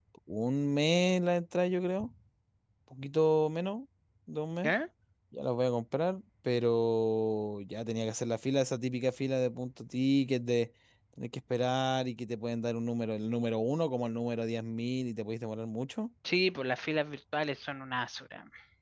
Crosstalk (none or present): none